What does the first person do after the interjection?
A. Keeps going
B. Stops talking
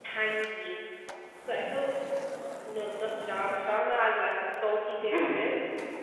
A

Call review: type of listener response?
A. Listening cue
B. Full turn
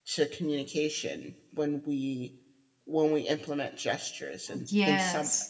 B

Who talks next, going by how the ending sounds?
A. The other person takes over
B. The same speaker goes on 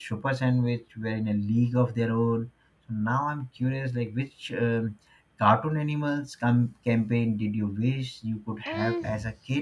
A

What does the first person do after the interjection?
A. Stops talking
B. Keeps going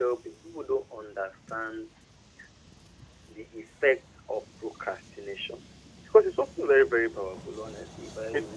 B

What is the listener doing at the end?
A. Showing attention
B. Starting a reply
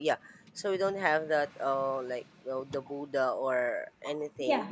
A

